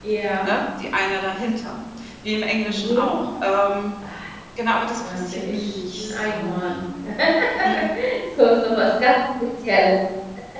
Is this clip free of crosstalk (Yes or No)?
No